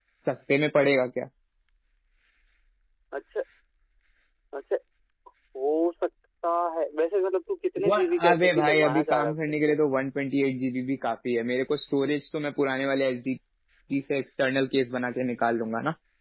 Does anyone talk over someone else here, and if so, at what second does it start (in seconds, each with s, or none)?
7.8 s